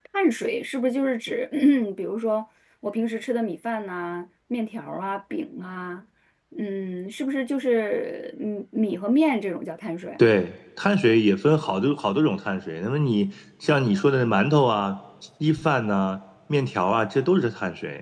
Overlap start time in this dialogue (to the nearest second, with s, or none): none